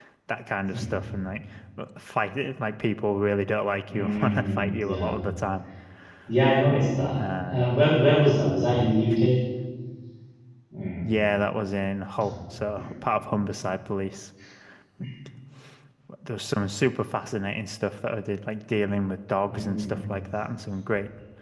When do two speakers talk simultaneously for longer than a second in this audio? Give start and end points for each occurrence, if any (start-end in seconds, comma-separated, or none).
3.9-5.1